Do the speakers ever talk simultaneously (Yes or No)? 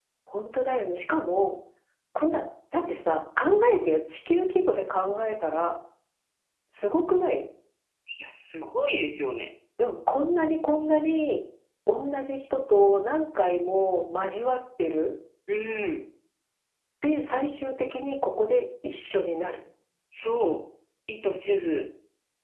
No